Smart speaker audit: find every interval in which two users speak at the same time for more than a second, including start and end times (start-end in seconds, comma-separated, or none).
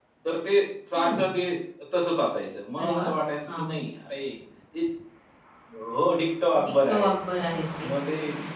none